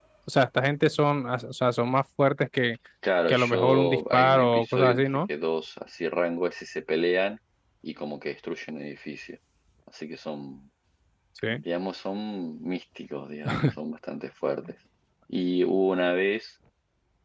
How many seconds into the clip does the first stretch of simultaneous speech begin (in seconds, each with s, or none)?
3.3 s